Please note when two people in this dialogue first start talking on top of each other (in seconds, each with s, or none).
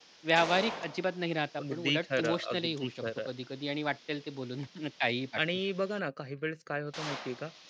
1.6 s